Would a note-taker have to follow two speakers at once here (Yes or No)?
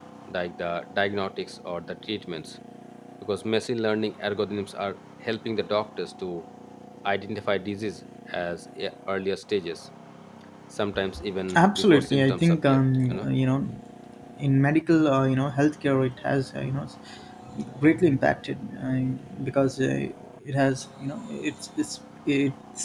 Yes